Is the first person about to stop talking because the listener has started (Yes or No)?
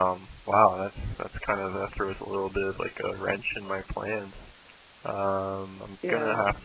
No